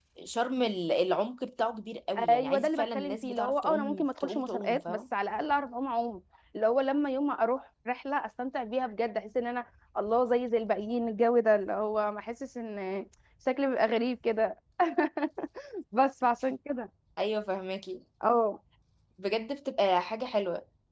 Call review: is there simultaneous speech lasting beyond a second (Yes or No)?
Yes